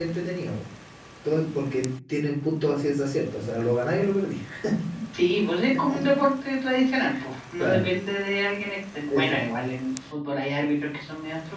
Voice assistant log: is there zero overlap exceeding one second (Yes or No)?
Yes